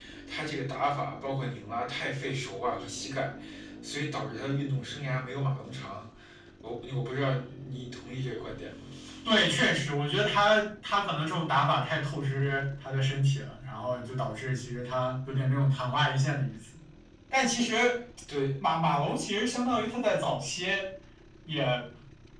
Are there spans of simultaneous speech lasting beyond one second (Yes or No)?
No